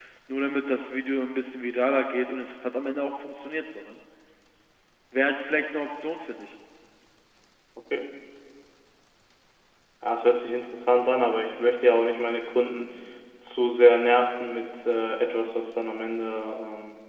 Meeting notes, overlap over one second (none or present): none